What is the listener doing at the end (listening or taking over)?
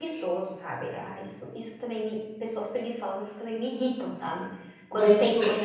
taking over